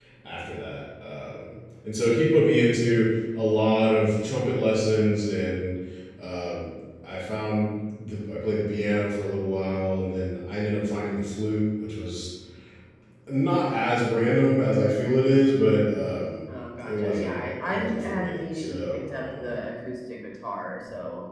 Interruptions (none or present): present